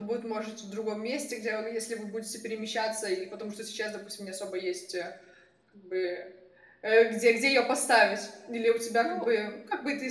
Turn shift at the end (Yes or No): No